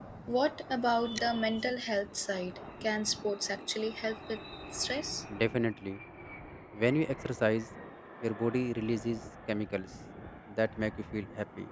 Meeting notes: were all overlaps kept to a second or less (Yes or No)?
Yes